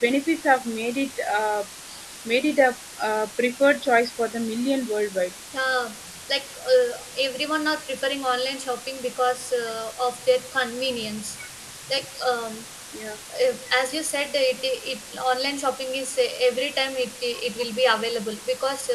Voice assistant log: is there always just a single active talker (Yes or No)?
Yes